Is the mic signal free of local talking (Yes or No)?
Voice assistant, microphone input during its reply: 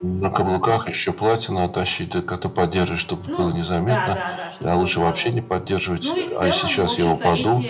No